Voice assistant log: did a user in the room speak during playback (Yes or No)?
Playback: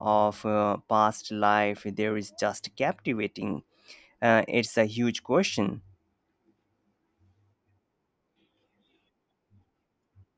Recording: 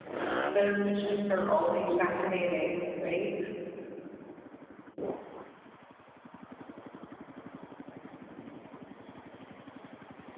Yes